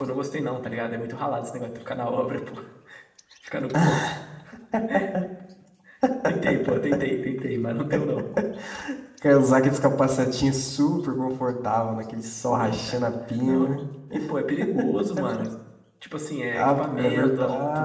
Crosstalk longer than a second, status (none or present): present